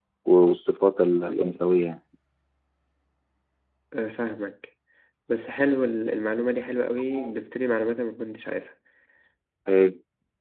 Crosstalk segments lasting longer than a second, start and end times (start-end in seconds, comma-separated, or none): none